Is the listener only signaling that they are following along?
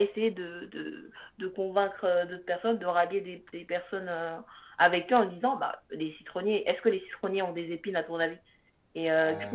Yes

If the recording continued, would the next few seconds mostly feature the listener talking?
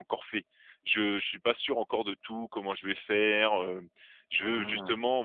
No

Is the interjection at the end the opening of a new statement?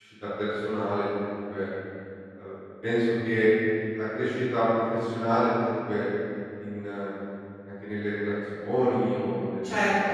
No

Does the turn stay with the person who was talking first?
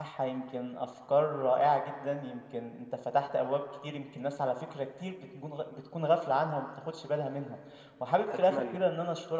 Yes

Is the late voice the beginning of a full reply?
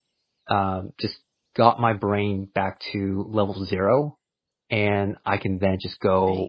No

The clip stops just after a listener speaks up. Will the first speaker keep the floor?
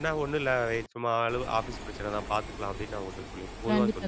No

